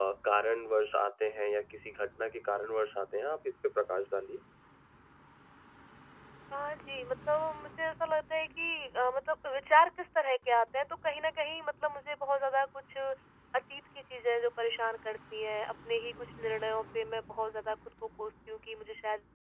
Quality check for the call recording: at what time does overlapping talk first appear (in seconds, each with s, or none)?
none